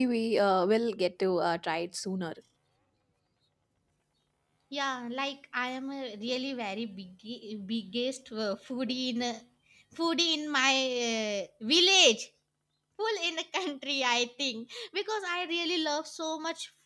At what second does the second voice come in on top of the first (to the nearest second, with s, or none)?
none